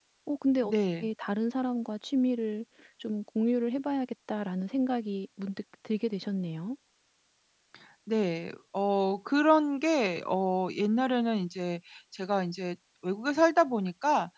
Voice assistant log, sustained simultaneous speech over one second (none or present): none